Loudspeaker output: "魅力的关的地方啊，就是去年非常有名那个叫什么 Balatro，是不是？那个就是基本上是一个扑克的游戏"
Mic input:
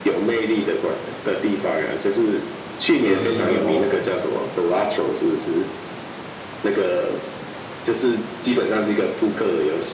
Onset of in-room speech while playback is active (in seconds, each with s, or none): 3.0 s